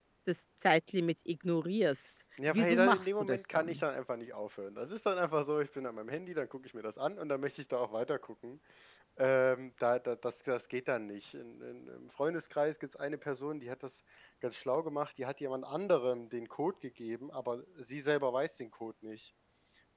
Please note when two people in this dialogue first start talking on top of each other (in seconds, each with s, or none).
2.4 s